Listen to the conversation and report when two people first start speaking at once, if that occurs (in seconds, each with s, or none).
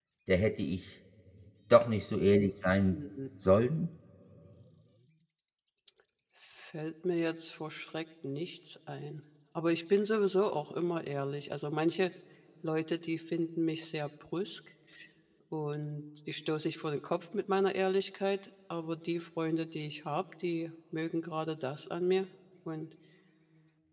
none